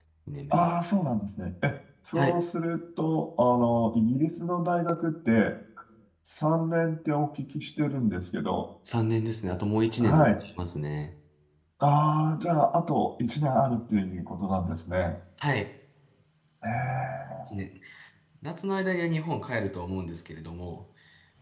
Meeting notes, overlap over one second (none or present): none